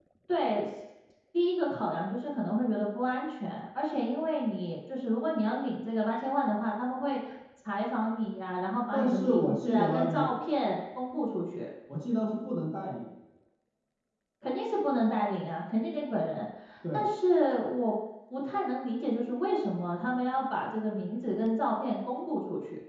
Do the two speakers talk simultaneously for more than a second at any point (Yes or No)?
Yes